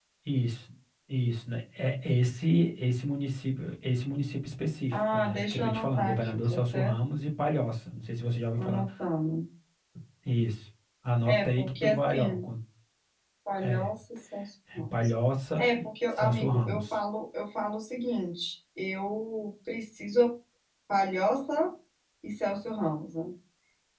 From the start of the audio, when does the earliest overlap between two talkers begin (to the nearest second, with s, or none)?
5 s